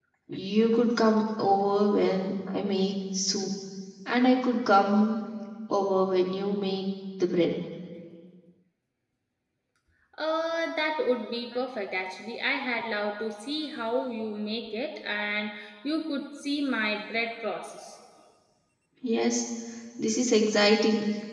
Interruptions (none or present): none